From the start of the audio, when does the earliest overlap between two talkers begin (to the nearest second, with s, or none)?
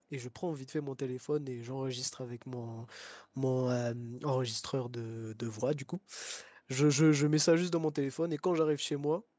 none